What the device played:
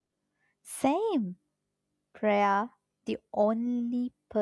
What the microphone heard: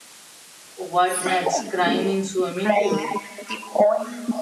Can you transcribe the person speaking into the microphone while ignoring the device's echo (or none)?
What next? Crying in swimming pool.